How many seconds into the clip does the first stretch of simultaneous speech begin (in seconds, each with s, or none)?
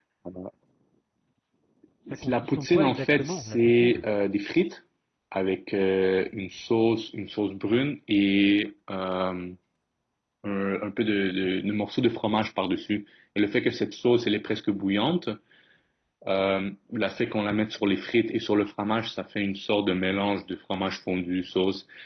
2.3 s